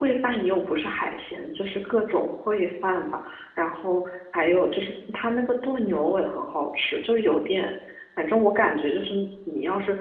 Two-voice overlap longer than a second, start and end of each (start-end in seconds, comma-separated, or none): none